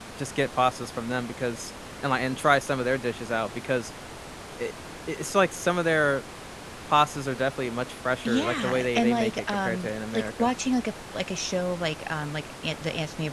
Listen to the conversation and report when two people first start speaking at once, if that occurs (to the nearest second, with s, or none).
8 s